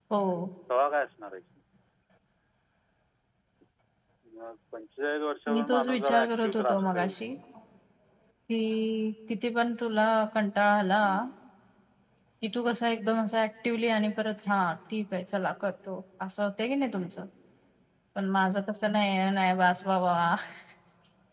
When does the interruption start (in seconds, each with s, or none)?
5.5 s